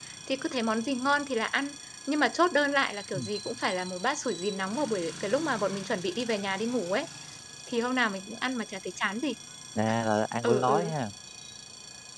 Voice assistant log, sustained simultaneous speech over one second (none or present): none